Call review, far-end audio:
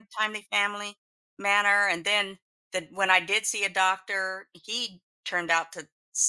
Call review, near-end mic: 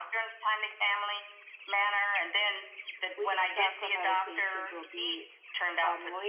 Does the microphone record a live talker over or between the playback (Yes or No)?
Yes